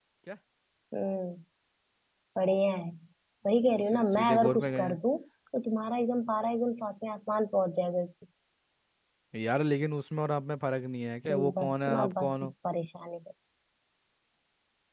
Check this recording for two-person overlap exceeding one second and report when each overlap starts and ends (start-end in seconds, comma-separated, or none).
3.5-5.0, 11.3-12.5